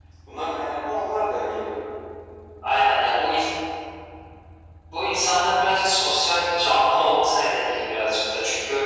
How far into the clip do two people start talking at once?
none

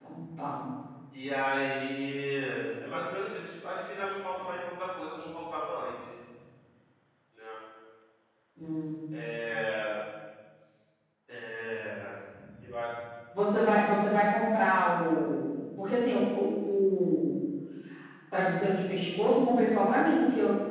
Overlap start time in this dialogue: none

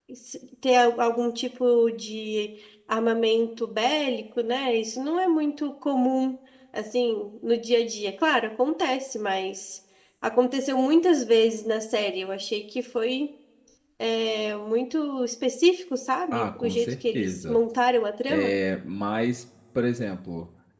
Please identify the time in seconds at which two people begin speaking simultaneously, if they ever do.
16.3 s

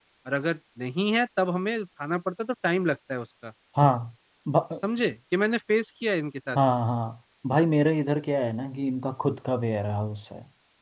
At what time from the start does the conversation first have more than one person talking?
none

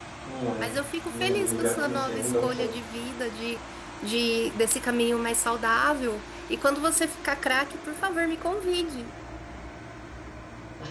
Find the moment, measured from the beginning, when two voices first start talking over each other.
1.1 s

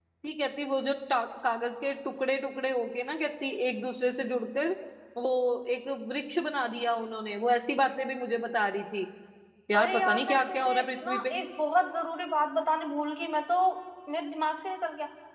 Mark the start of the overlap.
9.8 s

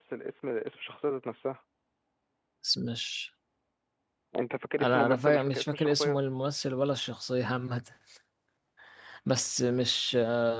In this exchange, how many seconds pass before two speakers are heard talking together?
4.8 s

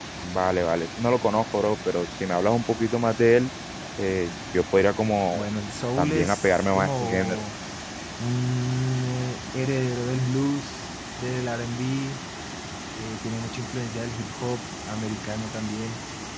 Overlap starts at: 6.0 s

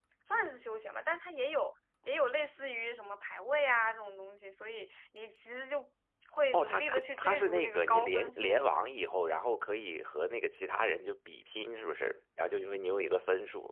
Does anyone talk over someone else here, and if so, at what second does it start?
6.5 s

